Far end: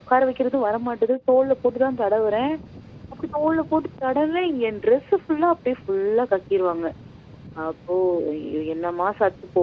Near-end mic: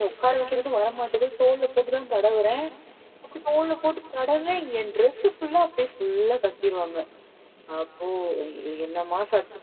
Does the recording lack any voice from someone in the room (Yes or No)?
Yes